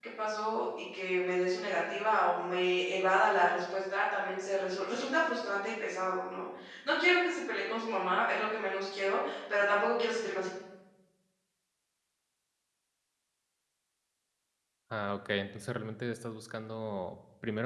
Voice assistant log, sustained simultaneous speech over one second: none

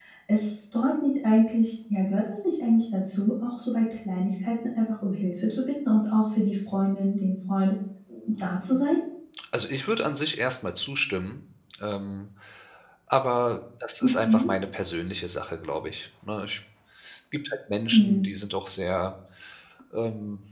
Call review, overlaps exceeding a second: none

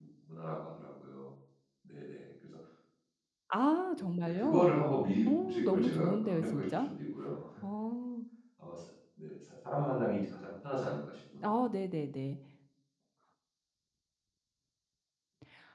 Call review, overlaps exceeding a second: present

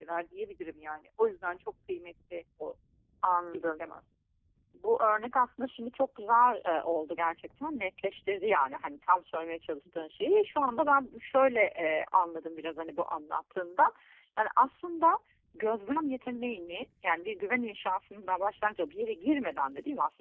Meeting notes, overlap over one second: none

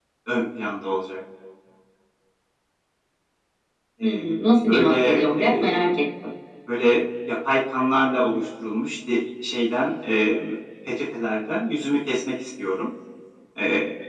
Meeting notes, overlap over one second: present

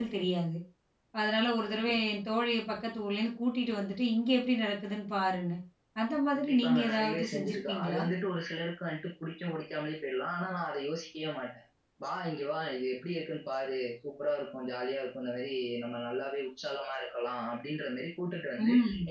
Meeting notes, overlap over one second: present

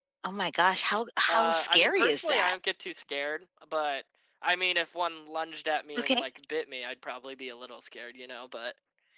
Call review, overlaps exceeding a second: present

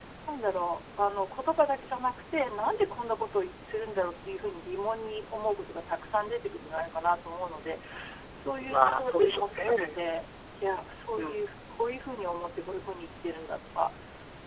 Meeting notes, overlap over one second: present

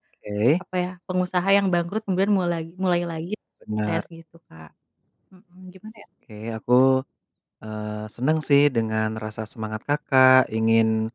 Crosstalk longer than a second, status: none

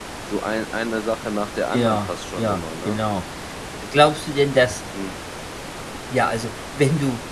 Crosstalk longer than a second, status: present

